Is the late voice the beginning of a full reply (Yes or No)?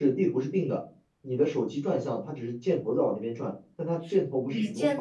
Yes